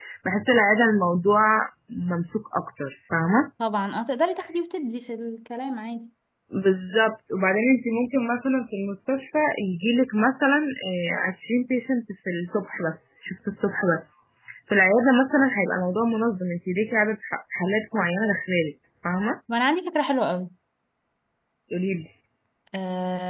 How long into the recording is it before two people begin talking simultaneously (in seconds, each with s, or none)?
none